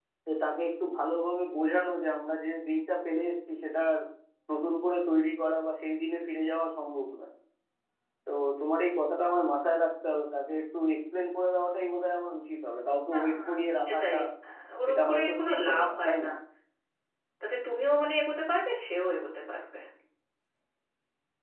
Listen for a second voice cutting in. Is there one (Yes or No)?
Yes